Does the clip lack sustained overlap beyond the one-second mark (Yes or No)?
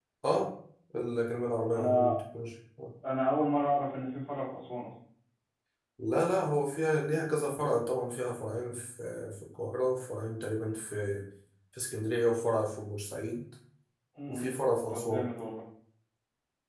Yes